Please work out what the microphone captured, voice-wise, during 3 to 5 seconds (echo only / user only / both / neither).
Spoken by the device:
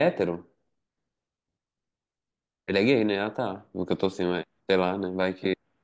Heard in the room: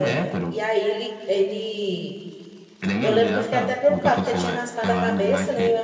both